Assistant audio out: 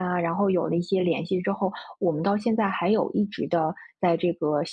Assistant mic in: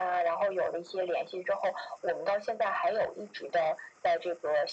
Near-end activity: none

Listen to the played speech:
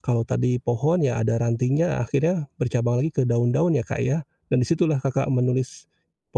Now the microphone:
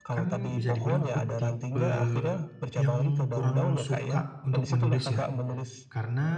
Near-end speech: present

